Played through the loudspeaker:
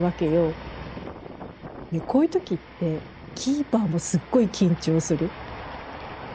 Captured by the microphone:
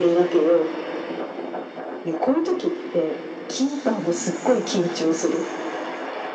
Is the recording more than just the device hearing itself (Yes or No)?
No